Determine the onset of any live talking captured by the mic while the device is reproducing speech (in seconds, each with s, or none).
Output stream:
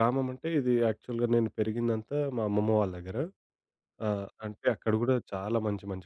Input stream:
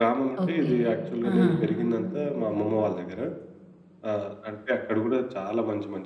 0.4 s